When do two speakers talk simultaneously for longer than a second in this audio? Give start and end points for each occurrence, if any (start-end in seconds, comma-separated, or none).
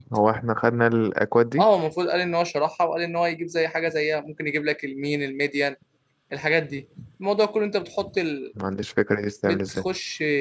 none